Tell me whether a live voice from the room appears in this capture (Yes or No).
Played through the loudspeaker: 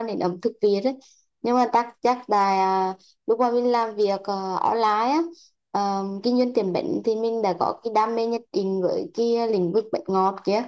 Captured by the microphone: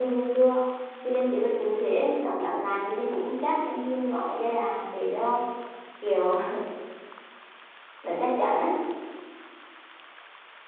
Yes